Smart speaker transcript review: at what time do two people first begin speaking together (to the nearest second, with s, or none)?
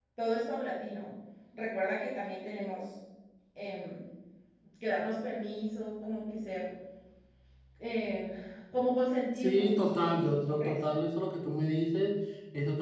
9 s